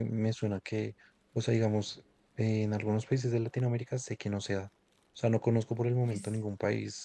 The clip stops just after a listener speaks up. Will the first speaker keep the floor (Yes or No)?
Yes